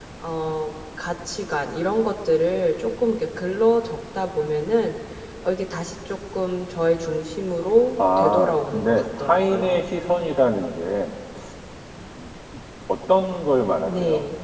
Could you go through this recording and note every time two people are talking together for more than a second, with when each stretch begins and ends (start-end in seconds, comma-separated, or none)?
8.2-9.8